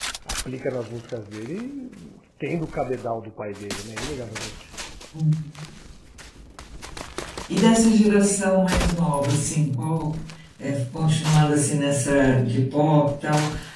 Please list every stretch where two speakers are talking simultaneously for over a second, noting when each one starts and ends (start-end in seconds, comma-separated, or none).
none